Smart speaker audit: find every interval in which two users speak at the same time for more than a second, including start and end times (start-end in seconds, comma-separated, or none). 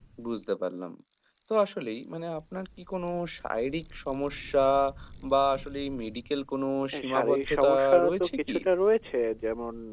6.9-8.6